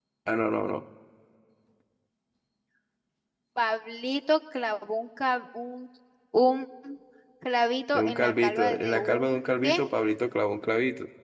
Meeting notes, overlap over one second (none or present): present